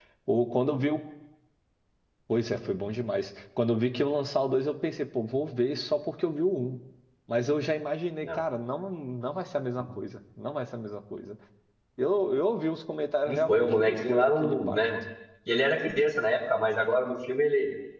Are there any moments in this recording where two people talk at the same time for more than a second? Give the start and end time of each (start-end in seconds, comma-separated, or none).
13.3-14.8